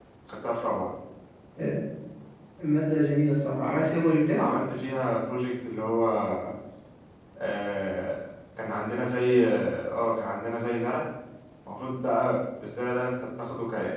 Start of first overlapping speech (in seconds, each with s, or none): none